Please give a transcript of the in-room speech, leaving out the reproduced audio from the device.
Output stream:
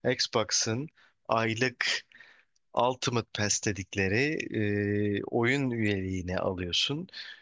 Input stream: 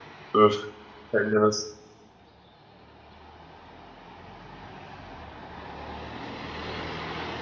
Öf. Sen de nasıl?

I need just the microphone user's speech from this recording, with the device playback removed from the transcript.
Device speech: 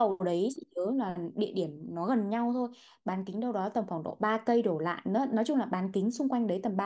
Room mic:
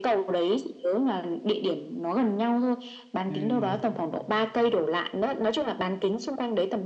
Ừ

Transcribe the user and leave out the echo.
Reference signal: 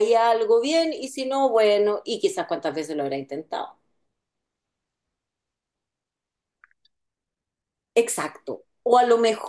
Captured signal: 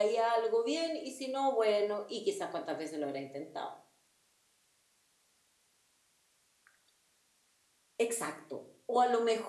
none

